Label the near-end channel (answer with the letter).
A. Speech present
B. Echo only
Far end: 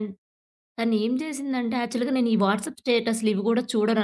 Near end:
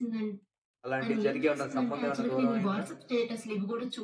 A